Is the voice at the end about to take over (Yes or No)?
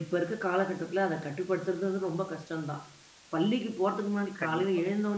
No